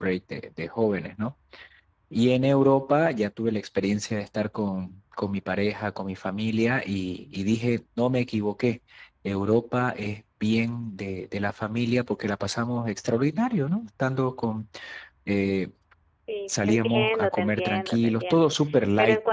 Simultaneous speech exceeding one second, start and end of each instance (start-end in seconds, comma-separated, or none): 16.5-18.5